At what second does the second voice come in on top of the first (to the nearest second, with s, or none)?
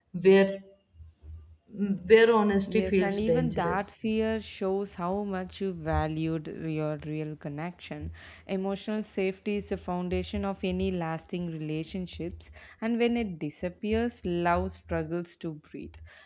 3 s